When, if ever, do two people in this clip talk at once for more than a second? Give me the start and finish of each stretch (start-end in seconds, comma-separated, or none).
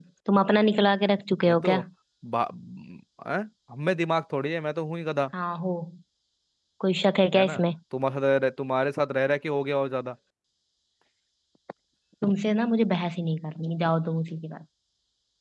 none